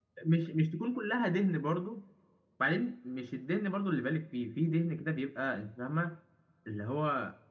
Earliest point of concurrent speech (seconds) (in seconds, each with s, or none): none